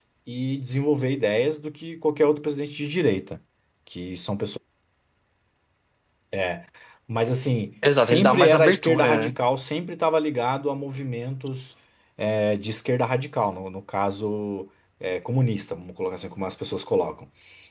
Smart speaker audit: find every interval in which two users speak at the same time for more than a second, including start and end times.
7.9-9.4

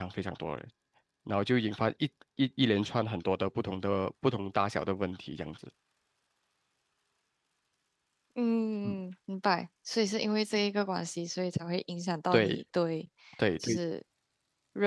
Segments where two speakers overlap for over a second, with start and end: none

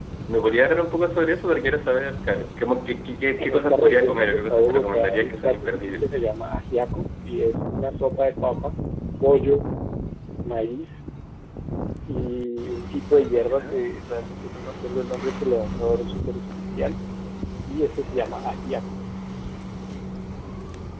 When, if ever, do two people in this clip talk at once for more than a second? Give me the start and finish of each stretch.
3.4-6.1

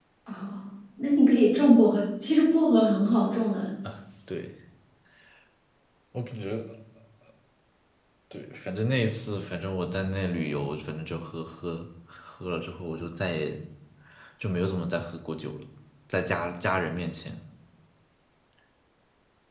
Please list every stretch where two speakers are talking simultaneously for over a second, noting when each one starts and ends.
none

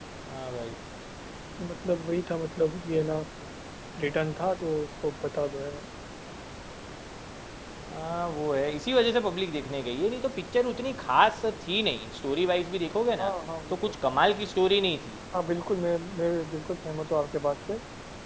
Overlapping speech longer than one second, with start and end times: none

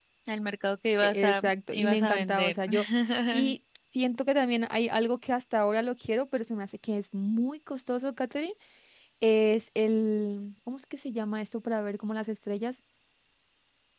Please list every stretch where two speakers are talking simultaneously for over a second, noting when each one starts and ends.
1.0-2.6

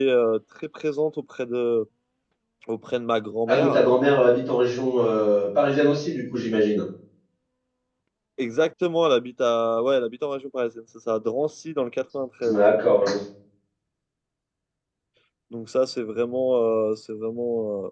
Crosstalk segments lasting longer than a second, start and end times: none

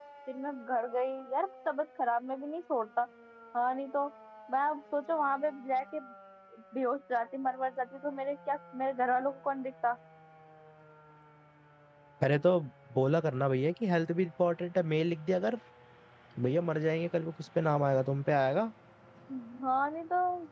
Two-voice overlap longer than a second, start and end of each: none

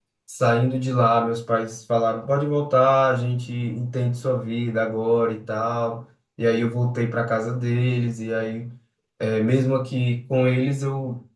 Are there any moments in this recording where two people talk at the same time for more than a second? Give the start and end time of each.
none

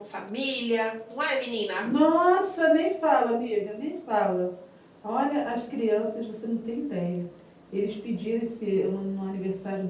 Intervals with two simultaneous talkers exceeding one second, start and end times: none

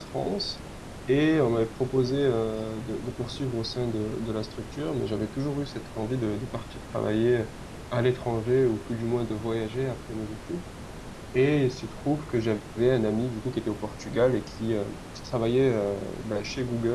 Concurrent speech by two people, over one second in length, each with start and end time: none

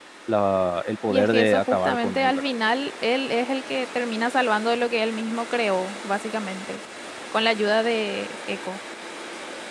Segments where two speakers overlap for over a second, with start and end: 1.1-2.5

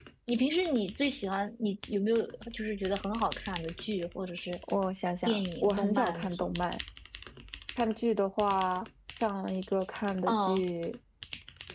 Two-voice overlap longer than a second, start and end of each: 5.3-6.5

